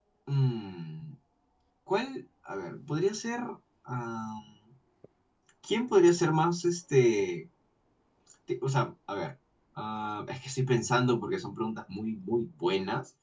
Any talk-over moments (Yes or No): No